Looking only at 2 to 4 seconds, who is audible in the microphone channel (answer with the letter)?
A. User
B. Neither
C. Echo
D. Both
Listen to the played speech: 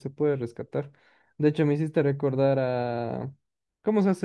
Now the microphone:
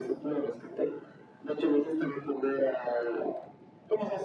C